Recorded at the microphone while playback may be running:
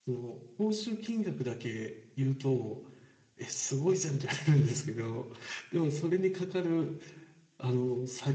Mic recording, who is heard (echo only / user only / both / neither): user only